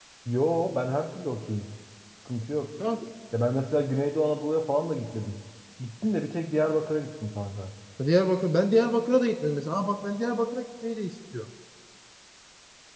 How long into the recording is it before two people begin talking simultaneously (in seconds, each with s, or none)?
none